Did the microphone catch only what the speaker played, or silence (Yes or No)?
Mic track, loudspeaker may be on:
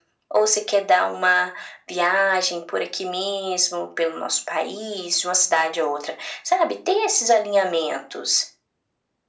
Yes